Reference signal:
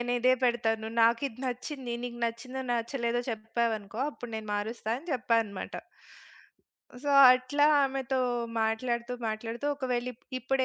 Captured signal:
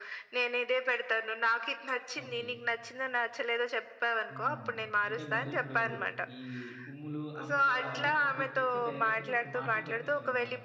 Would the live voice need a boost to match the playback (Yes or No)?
Yes